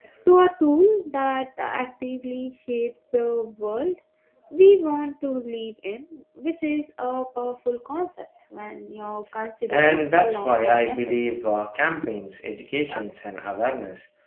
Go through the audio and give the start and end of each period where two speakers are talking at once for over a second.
9.7-11.5

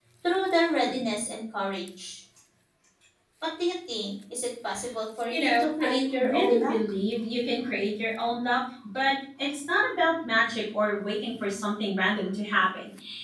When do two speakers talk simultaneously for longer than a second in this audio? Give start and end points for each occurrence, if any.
5.3-6.7

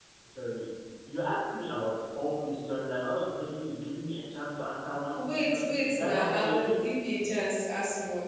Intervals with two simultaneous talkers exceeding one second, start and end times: 5.1-6.8

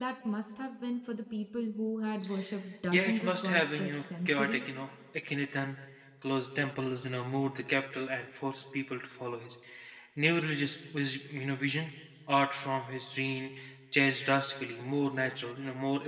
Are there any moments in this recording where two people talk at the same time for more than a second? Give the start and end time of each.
2.9-4.7

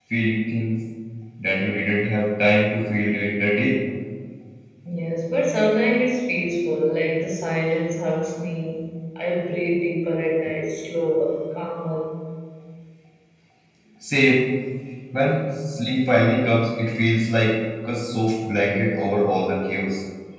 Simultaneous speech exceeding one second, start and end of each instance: none

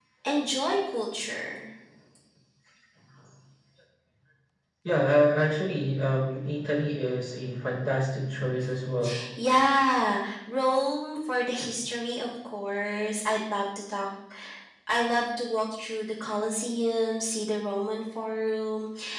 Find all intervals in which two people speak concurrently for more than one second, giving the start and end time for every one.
none

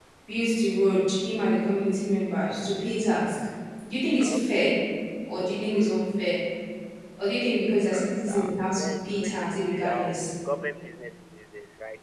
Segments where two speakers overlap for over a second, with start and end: 8.3-10.3

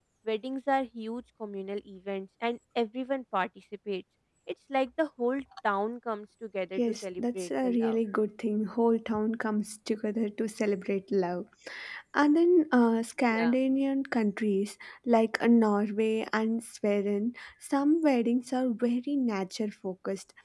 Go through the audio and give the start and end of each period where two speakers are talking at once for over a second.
6.8-8.0

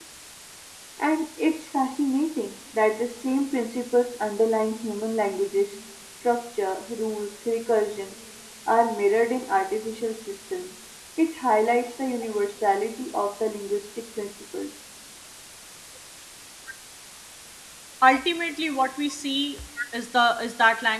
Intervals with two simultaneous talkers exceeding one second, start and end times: none

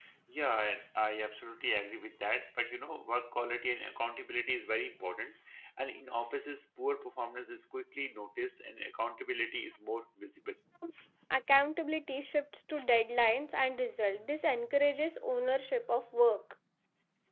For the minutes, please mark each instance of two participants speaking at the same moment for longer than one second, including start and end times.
none

